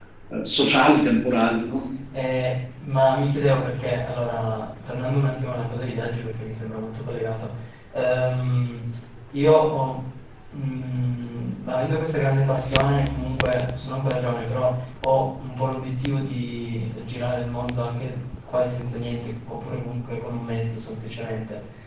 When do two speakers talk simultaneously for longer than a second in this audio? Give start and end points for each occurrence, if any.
none

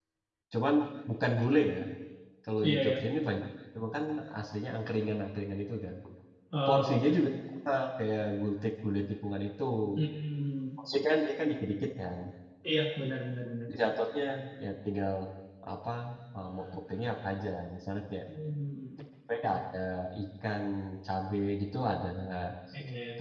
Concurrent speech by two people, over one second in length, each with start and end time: none

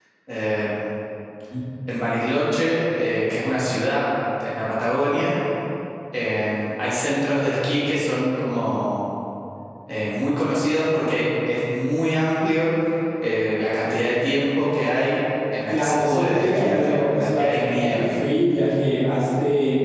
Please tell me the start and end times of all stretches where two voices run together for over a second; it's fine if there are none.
15.7-18.1

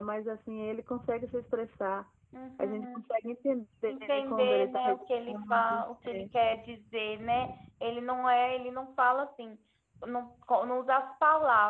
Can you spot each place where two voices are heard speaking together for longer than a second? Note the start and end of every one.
3.9-6.3

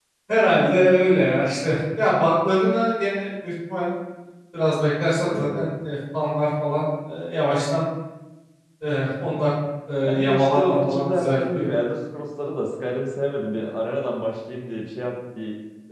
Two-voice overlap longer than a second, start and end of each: 10.0-11.7

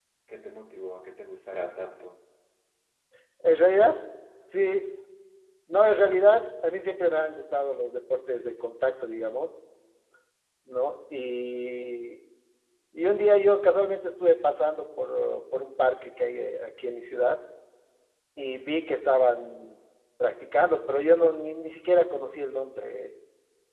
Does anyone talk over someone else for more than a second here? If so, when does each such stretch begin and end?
none

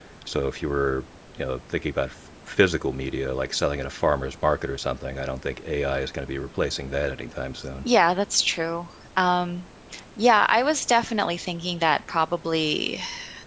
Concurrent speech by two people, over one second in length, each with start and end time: none

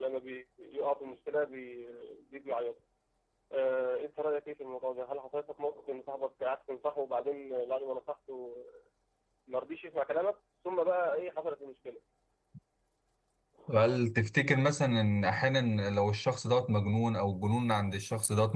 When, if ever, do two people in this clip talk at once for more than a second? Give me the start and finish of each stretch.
none

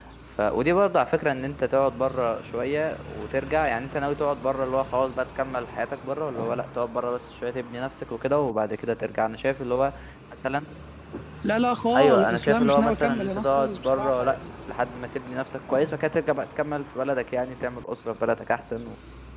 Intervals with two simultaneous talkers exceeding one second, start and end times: 11.9-14.7

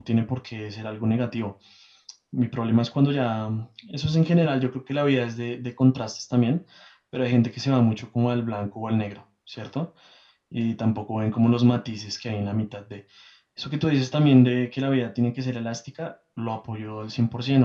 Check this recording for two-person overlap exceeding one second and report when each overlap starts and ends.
none

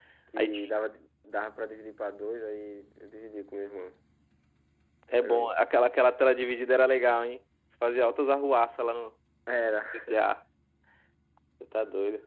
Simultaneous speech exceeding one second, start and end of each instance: none

